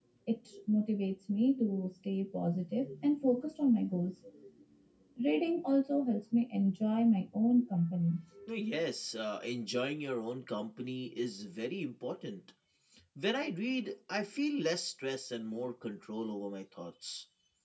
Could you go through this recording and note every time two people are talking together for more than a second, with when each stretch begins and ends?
none

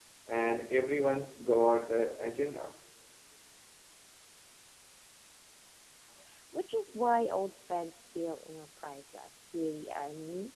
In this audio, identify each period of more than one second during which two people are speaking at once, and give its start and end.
none

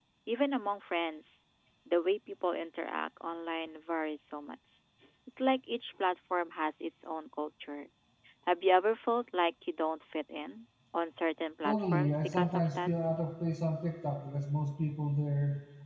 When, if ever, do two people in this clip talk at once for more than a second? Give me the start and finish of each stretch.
11.6-12.9

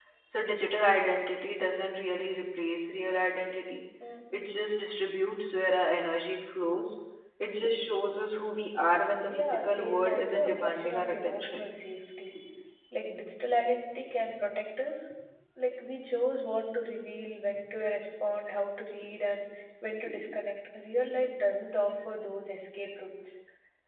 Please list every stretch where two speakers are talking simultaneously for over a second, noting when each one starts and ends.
9.3-11.7

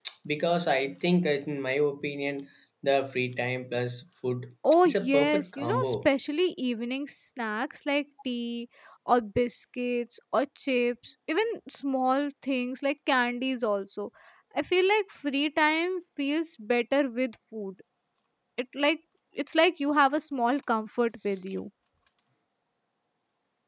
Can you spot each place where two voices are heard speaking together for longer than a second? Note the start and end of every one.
4.8-6.1

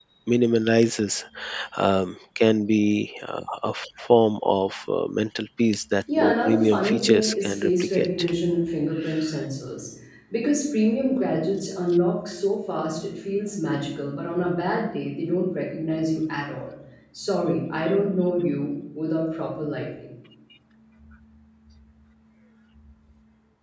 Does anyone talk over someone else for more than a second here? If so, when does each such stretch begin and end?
6.1-8.2

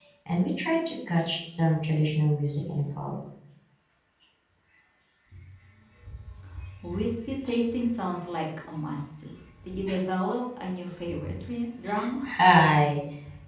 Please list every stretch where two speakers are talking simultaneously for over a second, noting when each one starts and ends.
none

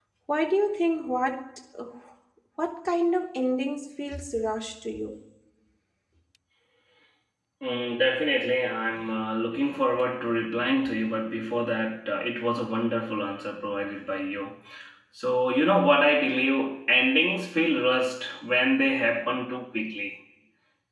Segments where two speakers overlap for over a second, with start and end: none

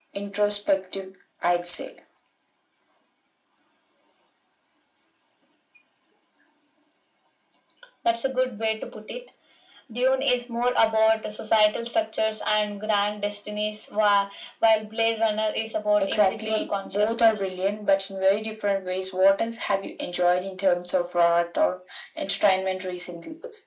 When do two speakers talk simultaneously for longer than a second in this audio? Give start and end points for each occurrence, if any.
16.0-17.6

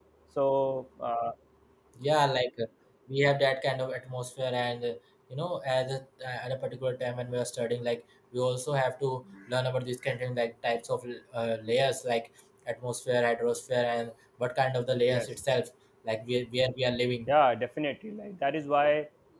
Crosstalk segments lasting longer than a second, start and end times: none

